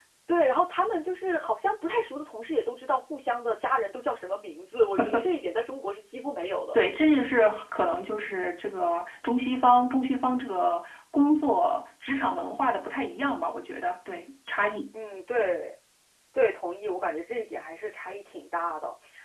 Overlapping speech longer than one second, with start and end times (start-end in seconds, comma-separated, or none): none